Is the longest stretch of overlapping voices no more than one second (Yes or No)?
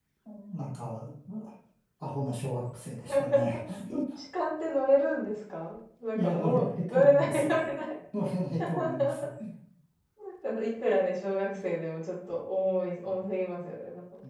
No